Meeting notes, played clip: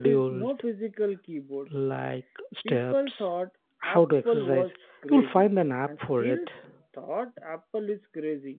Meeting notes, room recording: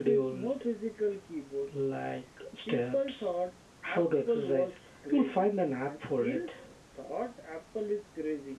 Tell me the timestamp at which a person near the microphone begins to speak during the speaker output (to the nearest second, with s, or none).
none